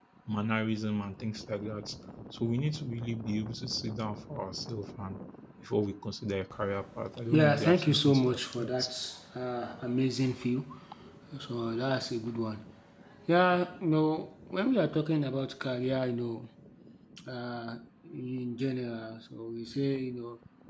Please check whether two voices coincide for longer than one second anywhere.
Yes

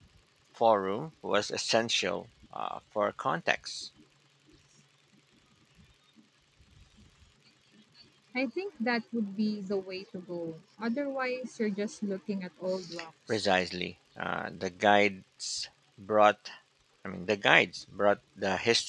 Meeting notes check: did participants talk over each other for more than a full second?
No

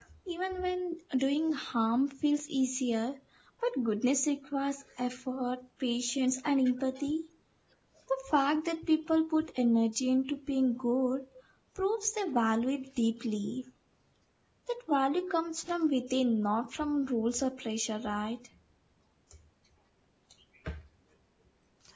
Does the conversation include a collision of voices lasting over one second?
No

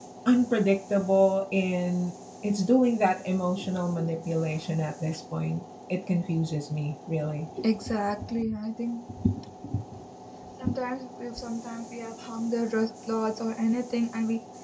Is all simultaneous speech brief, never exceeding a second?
Yes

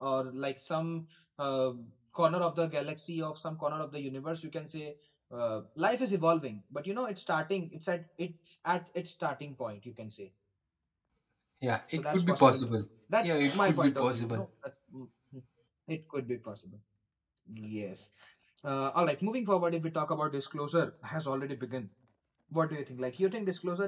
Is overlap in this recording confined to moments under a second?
No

